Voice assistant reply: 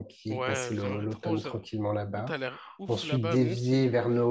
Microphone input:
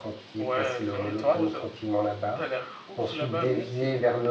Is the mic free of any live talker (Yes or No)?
No